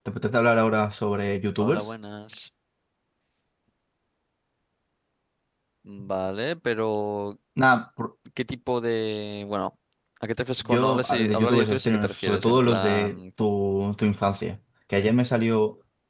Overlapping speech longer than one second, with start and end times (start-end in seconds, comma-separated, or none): 10.7-13.2